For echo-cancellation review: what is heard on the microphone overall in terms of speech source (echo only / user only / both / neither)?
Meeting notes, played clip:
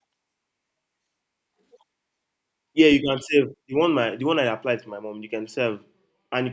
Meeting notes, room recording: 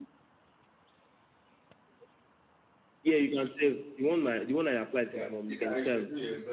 both